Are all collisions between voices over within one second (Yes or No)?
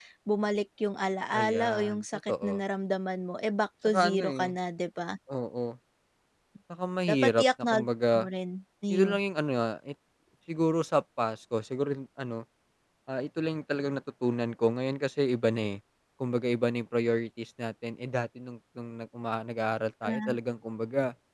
No